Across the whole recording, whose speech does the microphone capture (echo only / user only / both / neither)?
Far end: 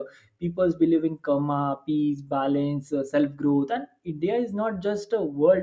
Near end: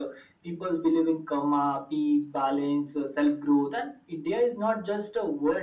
echo only